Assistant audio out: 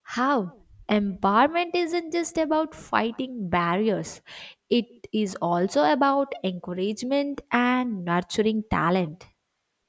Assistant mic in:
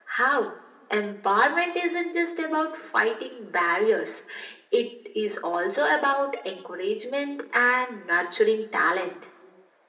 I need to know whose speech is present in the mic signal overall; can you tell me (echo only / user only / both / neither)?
echo only